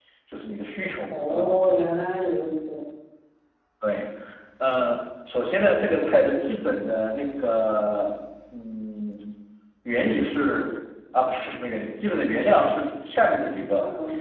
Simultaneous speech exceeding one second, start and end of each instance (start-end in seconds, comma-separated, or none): none